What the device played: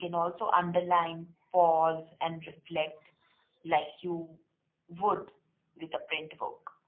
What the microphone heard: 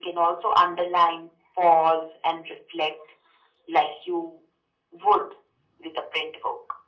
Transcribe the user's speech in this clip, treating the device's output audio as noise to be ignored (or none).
none